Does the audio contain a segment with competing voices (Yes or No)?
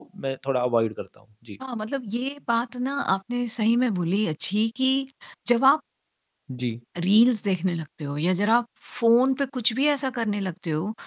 No